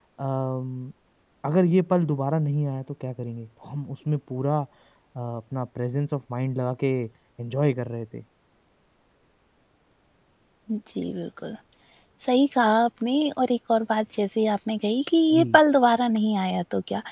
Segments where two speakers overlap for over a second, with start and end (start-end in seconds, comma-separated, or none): none